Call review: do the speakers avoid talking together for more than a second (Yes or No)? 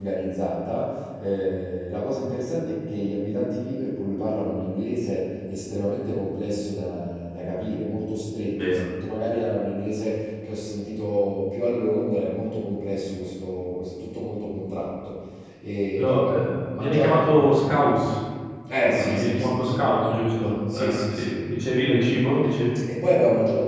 No